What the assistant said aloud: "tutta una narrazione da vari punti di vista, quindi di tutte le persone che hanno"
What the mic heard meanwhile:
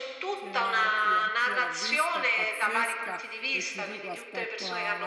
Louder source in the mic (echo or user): echo